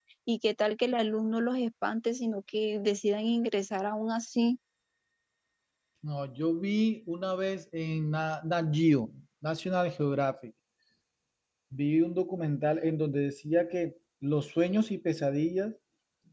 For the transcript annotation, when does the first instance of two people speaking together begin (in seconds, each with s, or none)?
none